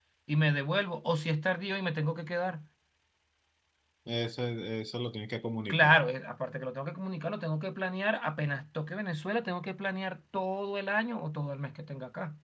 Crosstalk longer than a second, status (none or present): none